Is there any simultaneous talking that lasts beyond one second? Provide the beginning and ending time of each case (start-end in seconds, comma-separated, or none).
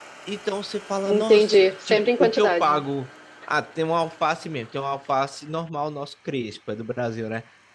1.1-2.8